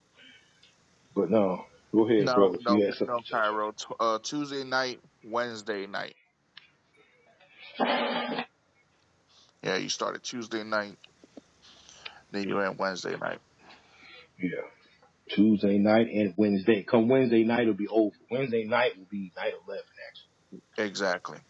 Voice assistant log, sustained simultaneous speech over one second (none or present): present